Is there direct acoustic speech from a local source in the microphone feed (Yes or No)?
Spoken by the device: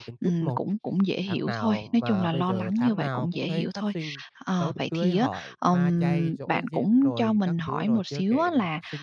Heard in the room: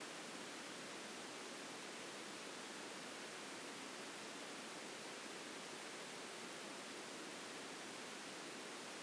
No